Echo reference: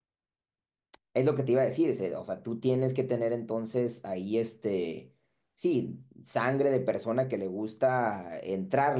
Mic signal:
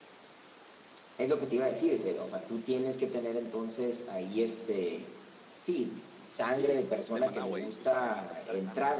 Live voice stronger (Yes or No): No